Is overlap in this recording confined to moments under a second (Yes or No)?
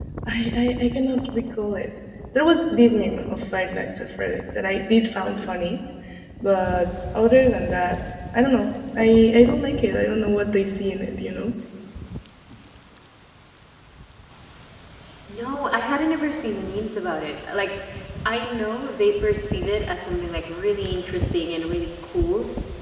Yes